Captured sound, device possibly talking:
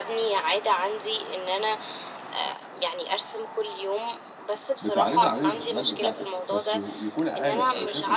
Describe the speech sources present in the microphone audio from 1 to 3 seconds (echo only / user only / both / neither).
echo only